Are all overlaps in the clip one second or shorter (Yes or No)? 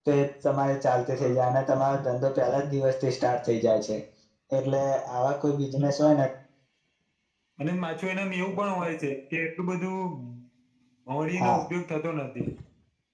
Yes